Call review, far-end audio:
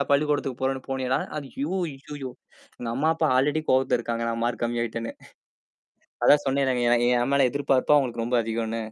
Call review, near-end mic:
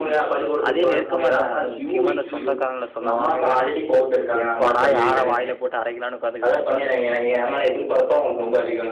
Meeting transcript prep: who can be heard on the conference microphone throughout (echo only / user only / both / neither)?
both